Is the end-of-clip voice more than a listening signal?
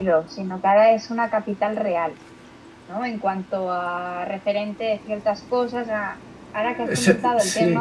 No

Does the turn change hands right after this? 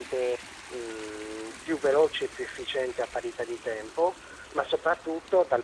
No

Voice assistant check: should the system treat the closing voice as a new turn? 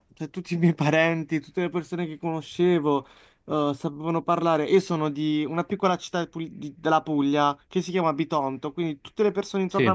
No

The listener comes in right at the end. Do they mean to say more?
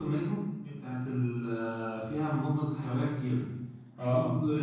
No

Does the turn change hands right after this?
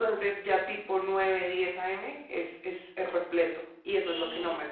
Yes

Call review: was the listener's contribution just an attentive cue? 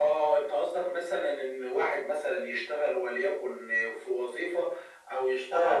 Yes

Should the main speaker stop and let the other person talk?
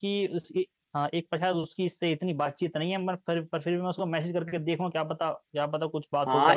Yes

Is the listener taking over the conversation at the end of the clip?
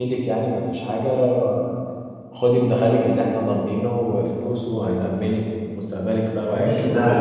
Yes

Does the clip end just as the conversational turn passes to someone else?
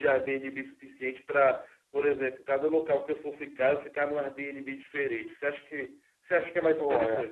Yes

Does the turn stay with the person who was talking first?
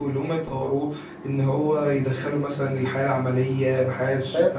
No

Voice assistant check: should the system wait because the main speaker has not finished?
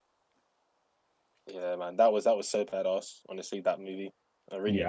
No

